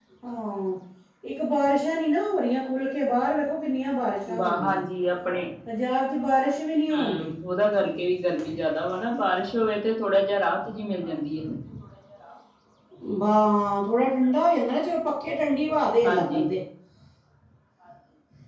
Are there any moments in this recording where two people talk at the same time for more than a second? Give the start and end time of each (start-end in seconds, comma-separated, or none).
none